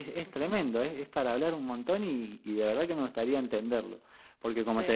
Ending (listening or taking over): listening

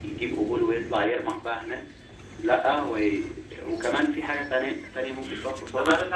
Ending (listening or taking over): taking over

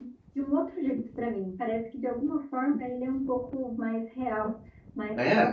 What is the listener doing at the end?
listening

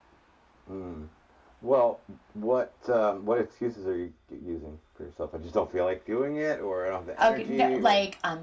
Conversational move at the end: taking over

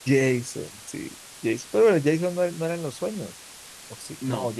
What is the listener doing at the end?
listening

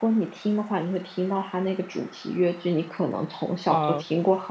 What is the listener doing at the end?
listening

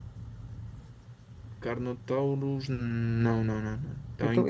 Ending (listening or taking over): taking over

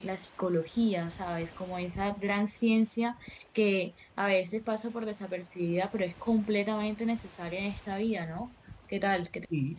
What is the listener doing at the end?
taking over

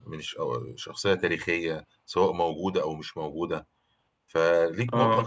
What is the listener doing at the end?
listening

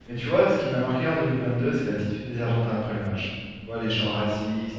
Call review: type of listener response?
listening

